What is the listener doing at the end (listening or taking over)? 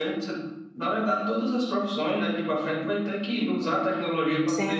listening